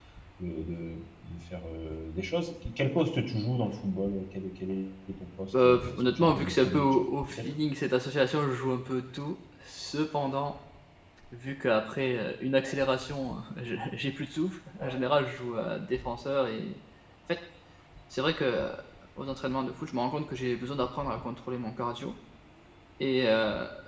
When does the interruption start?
5.5 s

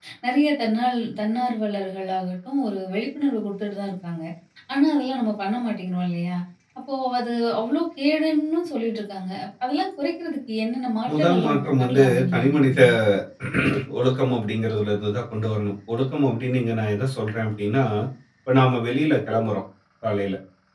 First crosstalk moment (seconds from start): 11.1 s

